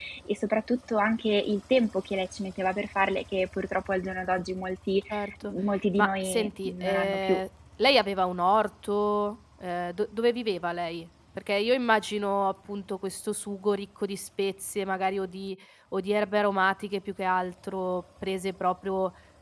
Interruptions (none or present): present